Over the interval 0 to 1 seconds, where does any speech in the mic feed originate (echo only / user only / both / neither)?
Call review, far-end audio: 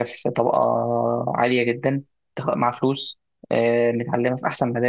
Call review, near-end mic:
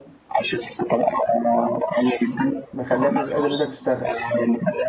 echo only